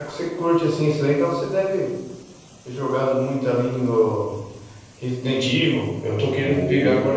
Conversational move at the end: listening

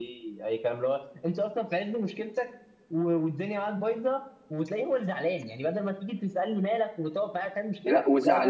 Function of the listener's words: taking over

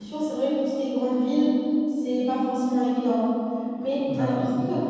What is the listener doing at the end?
listening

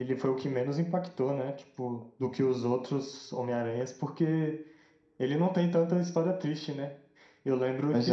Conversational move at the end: listening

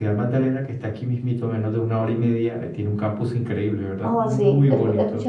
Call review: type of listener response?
taking over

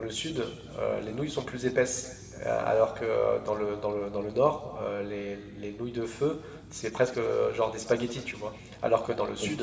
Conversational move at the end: listening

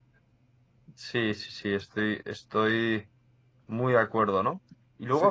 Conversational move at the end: listening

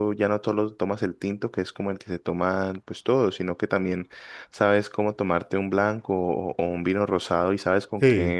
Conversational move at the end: listening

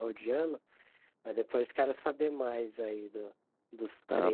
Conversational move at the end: taking over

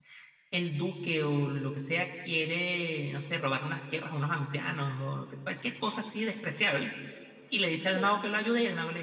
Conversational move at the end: listening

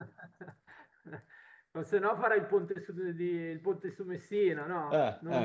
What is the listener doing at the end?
taking over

